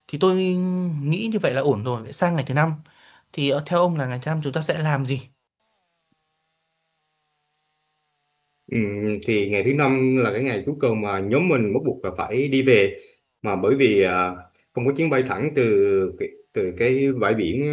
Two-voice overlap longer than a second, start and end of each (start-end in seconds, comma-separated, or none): none